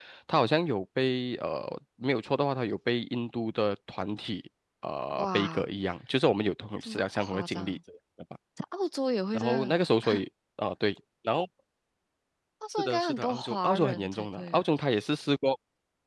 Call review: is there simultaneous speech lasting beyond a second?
Yes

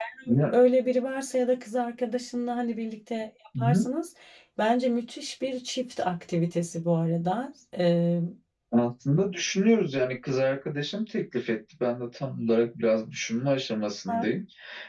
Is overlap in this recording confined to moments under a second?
Yes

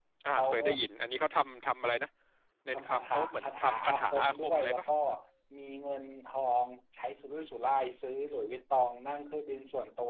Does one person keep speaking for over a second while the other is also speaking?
Yes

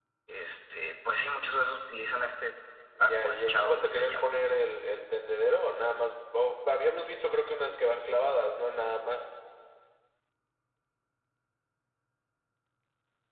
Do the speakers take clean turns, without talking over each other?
No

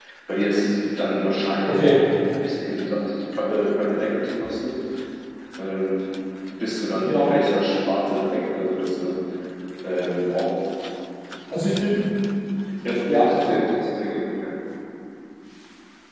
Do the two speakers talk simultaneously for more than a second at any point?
No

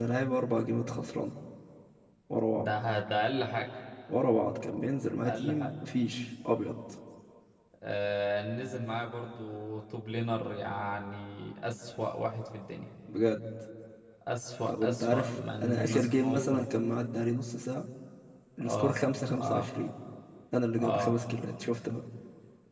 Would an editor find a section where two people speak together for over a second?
Yes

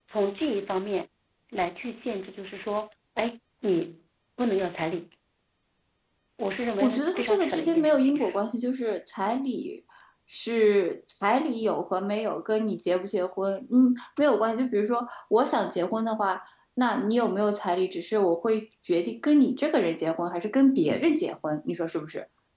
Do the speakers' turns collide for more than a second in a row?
Yes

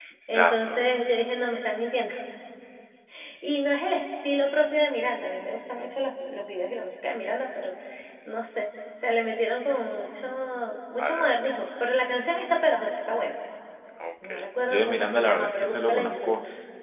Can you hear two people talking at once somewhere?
Yes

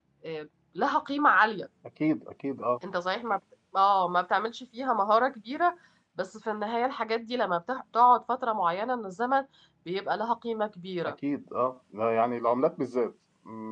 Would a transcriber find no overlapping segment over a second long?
Yes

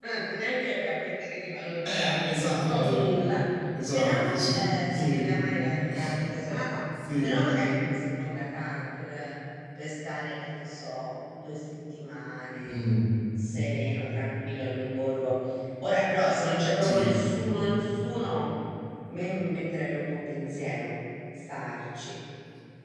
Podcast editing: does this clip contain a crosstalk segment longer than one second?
Yes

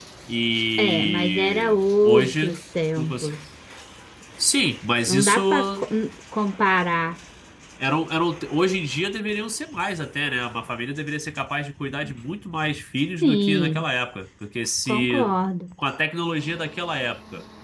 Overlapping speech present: Yes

